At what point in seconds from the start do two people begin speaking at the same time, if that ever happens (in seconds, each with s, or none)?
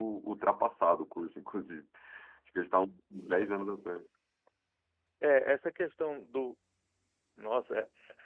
none